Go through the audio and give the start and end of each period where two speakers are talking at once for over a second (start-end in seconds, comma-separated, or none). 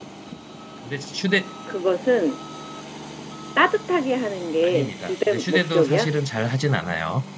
4.6-6.1